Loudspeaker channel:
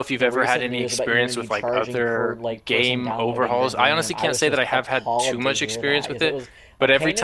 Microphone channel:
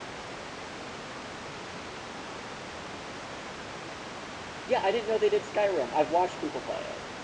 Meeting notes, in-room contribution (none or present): present